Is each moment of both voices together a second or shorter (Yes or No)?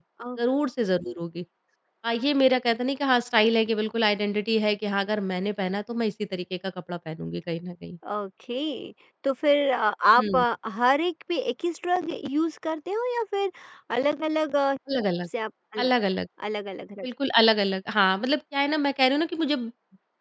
Yes